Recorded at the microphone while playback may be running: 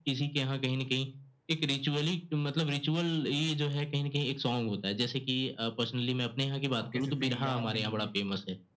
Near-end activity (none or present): present